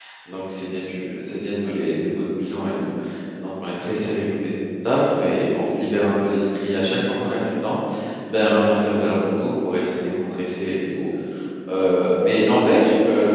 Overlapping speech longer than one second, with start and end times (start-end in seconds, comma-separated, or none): none